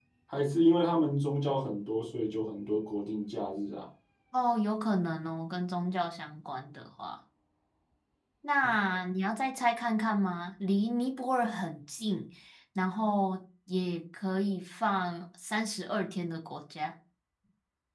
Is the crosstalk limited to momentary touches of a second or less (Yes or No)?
Yes